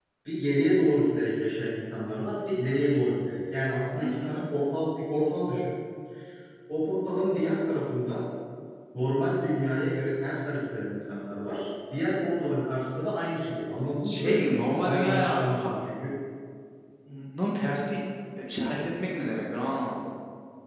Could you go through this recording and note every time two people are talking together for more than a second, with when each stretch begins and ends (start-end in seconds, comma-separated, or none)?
none